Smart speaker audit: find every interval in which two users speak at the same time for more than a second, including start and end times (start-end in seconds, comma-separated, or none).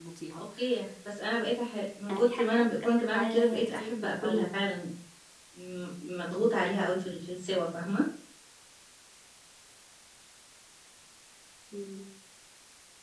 2.1-4.5